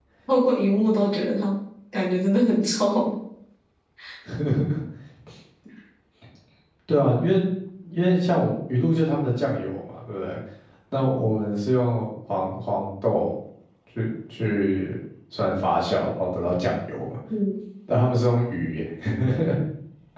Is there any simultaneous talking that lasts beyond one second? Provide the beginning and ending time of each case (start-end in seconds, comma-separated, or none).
none